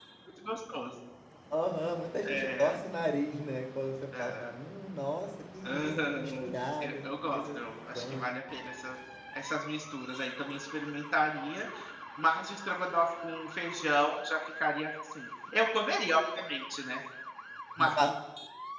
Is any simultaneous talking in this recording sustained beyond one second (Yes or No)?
Yes